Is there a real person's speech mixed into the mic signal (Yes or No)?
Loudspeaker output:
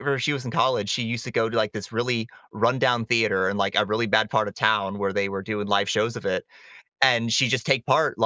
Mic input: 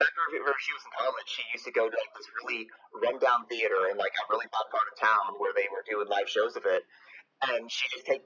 No